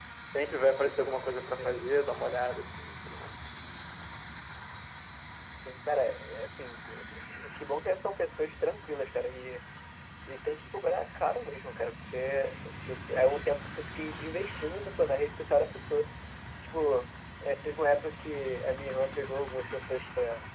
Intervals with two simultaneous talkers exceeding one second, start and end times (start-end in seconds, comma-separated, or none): none